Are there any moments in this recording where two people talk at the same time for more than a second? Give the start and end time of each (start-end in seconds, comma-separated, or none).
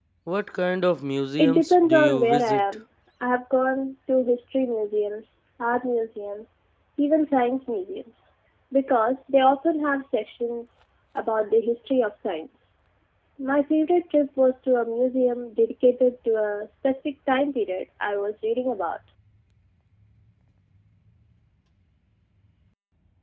1.4-2.6